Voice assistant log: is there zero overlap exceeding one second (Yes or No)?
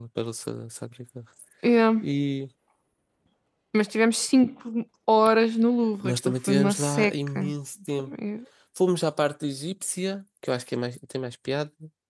No